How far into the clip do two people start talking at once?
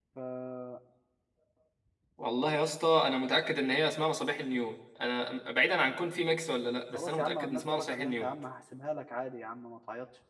6.9 s

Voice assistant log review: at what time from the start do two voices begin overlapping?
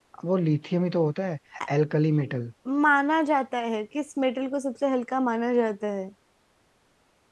none

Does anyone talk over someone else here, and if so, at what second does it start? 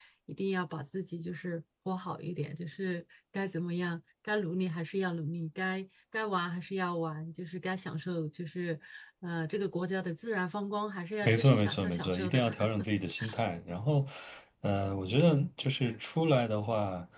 11.2 s

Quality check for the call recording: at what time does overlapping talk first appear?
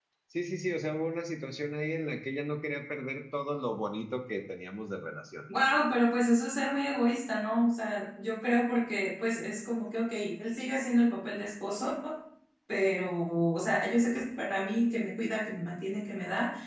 none

